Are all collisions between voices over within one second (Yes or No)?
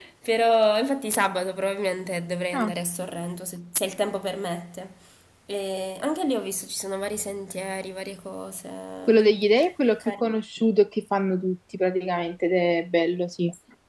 Yes